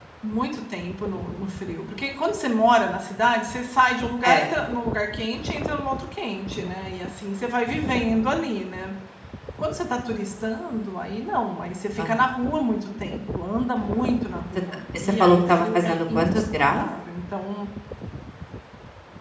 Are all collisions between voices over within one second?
No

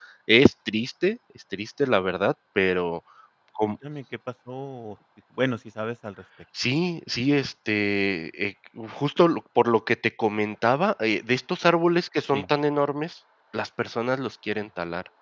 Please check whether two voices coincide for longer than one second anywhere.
No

